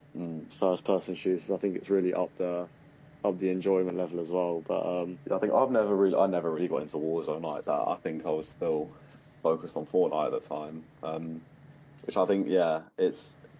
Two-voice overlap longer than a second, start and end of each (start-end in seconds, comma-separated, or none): none